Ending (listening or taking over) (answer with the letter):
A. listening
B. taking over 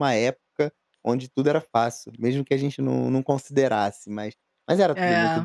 A